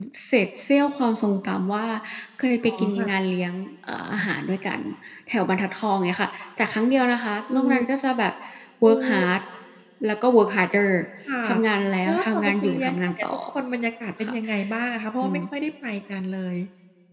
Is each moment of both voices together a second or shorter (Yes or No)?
No